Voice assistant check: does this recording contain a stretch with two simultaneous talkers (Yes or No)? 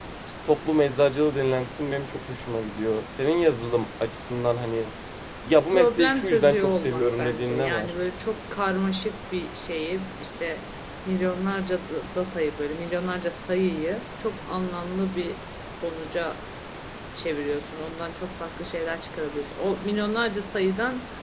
Yes